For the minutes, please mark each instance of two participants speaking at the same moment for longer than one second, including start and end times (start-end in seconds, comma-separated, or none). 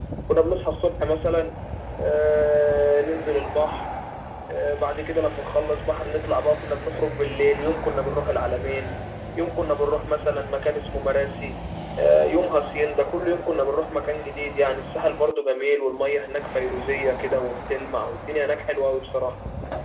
none